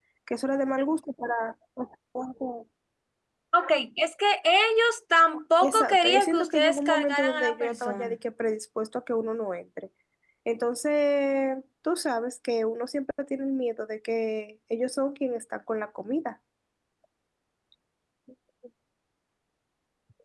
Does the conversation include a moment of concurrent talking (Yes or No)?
Yes